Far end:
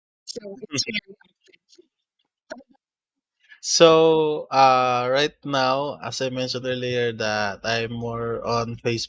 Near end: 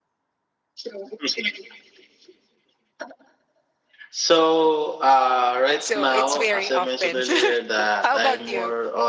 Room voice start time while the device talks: 5.8 s

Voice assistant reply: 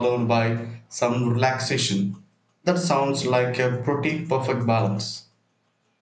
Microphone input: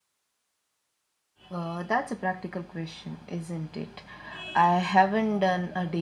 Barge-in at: 1.5 s

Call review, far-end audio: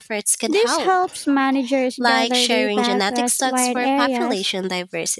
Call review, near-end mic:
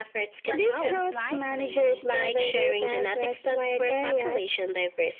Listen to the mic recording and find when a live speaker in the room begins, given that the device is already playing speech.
0.4 s

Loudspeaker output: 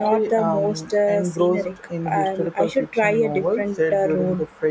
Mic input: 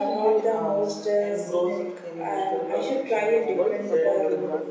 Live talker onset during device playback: 3.3 s

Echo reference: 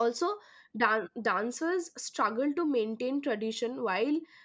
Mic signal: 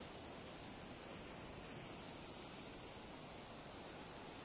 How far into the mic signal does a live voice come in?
none

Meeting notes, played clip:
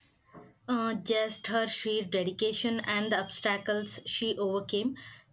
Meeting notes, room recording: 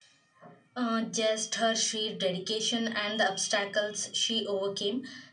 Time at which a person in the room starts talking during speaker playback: none

